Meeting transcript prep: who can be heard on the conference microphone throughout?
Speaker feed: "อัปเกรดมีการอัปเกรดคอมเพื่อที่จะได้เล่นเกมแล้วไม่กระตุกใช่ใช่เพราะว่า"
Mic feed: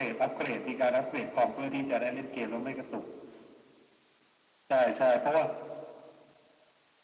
echo only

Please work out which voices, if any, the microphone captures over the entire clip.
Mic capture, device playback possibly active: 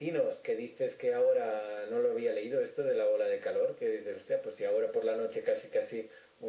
echo only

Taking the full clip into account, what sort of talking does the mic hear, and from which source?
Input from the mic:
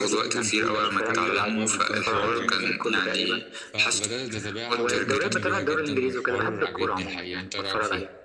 both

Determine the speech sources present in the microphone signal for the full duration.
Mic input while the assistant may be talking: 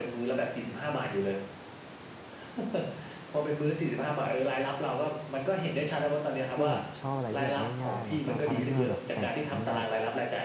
both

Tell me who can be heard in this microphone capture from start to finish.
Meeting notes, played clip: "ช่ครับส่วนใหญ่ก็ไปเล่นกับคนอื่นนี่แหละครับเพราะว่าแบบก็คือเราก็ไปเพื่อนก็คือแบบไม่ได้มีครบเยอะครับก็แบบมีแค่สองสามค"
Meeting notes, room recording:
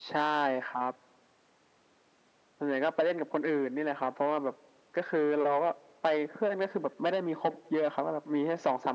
echo only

